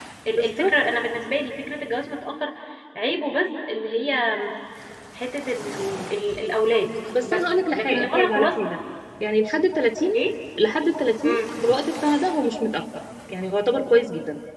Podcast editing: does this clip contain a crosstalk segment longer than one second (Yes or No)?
Yes